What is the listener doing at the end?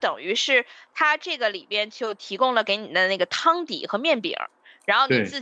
listening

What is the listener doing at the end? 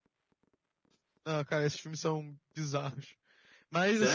taking over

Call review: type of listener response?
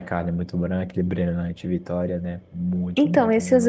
taking over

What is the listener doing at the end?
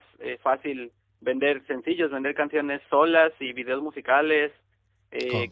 listening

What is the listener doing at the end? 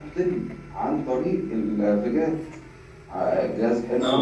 listening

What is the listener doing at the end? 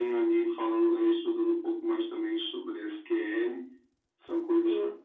listening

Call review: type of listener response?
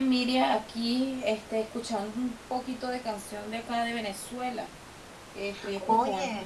listening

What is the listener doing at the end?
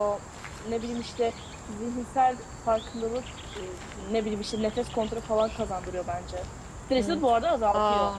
taking over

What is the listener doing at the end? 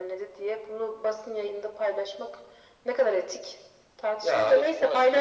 taking over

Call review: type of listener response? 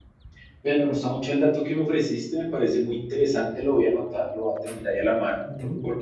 listening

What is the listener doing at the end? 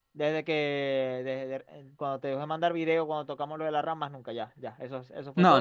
taking over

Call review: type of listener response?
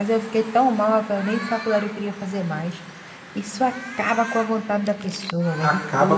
taking over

